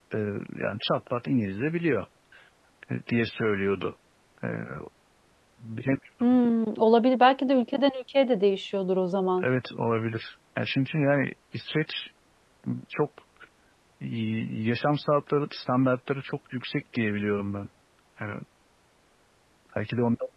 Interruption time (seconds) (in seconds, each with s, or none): none